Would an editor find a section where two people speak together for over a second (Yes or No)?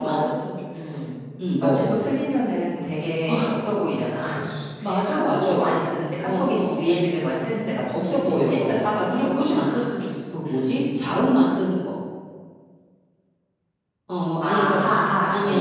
Yes